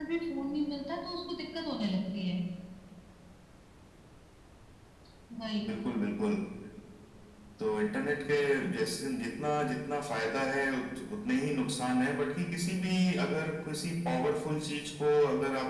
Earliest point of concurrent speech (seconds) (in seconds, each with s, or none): none